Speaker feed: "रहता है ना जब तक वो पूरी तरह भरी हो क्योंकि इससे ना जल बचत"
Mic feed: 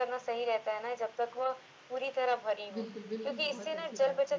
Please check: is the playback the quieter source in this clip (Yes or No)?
No